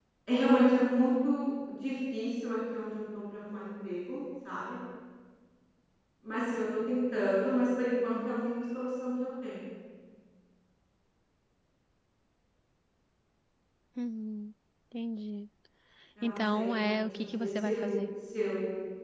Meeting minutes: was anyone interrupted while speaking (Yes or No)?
Yes